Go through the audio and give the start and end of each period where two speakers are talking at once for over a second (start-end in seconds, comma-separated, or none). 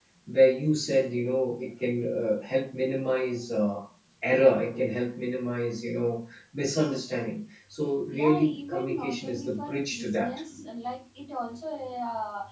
8.1-10.4